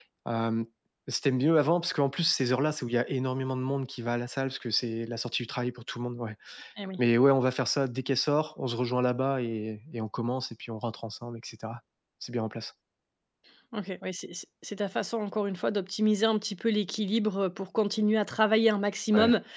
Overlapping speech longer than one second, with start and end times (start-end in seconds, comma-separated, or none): none